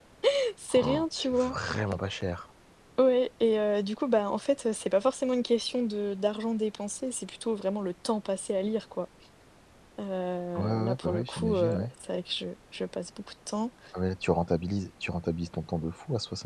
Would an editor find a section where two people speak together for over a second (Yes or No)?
Yes